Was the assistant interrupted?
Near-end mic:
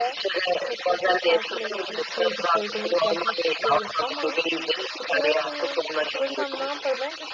Yes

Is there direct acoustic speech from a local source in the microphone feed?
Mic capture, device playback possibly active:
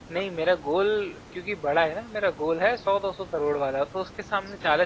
Yes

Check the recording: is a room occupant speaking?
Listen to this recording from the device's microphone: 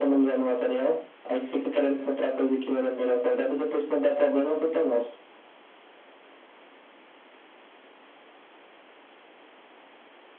No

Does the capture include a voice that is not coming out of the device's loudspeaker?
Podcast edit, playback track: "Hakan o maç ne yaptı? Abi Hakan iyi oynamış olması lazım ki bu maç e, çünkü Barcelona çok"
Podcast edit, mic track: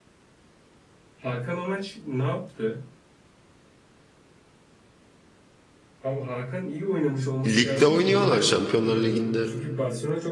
Yes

